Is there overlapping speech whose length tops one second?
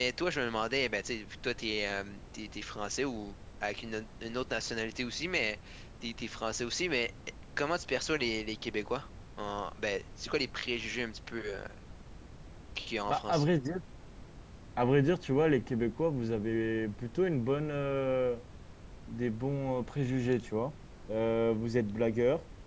No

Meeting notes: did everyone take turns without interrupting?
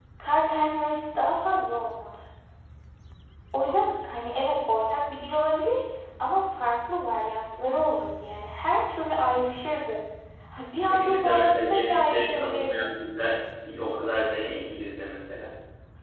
No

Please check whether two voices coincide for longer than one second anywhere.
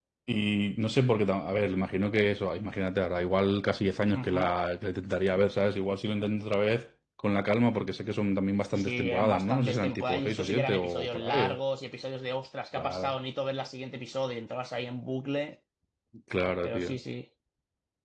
Yes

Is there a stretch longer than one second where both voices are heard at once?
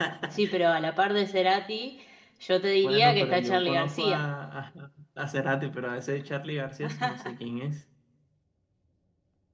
Yes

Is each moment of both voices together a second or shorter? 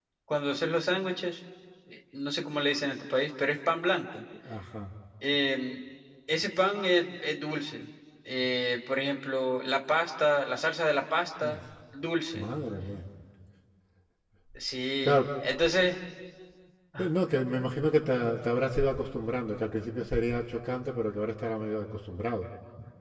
Yes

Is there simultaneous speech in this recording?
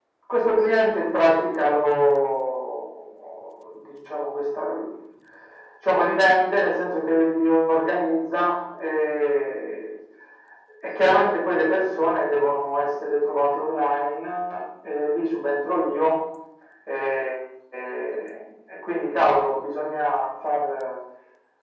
No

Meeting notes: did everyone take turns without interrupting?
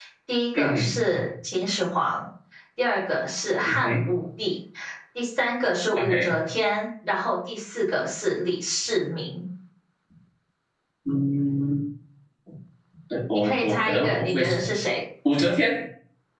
No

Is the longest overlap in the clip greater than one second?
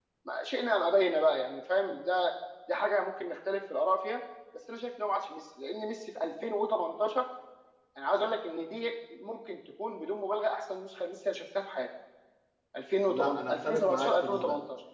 Yes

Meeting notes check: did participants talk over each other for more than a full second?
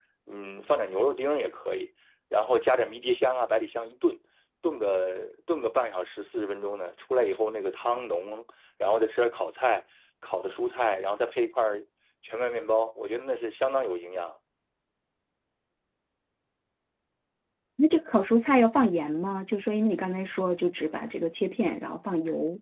No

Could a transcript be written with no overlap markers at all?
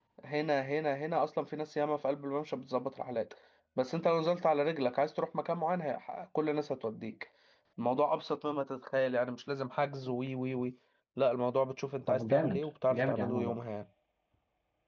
No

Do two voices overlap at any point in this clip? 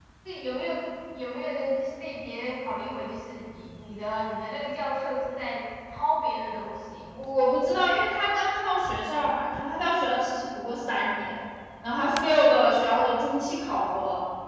No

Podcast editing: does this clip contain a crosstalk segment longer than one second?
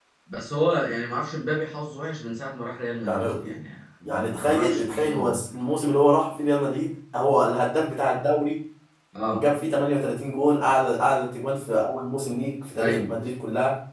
Yes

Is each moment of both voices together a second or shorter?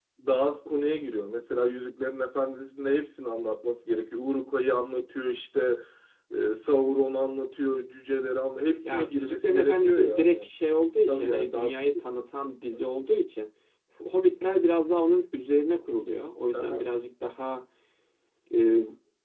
No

